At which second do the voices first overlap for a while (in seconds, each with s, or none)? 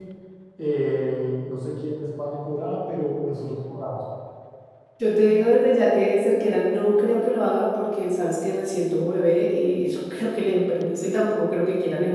none